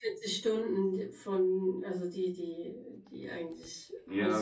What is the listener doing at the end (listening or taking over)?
taking over